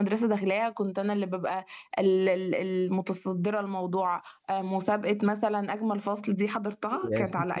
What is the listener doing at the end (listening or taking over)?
taking over